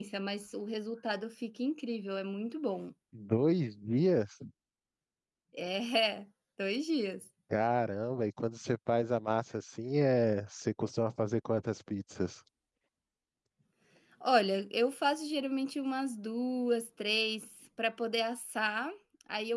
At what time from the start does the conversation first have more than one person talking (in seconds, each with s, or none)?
none